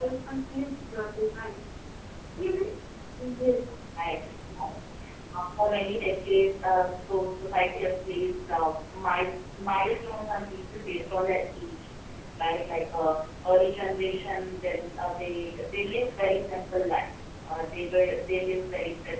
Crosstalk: none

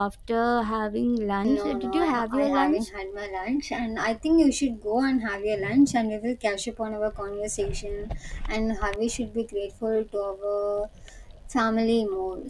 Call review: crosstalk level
present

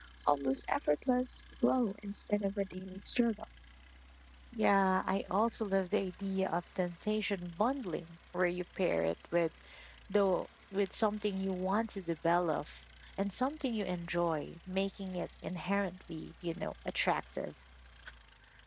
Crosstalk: none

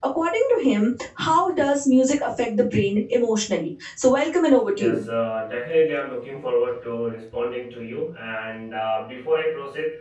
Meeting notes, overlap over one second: none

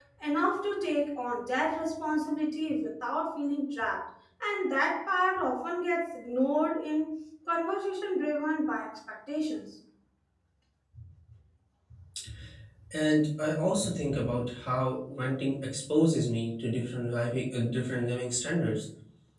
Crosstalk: none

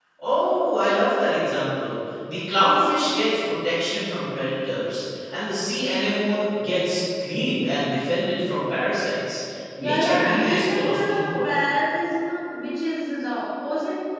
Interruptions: present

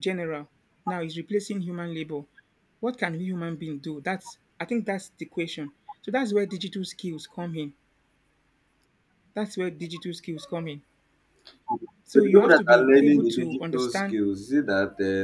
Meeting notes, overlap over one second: present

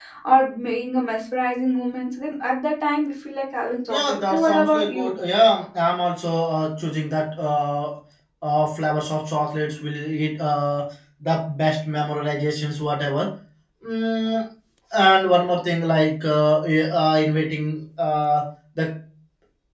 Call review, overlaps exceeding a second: present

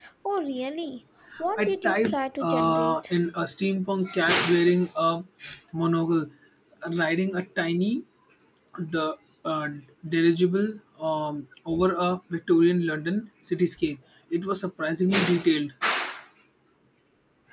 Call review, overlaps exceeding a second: present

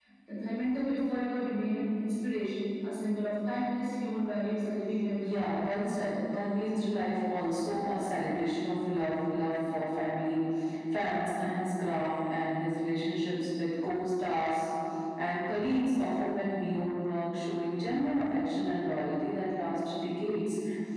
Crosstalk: present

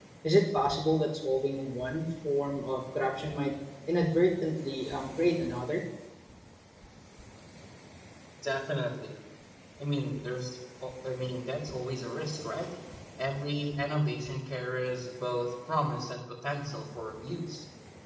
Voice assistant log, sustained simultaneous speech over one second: none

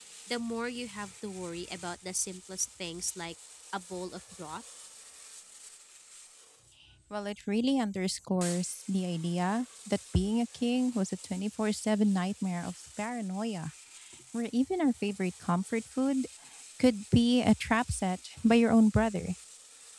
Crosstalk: none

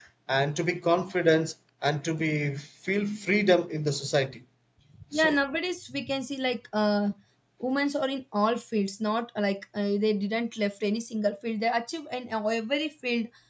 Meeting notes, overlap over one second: none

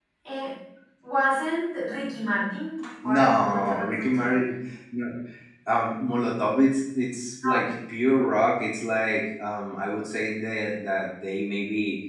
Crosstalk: present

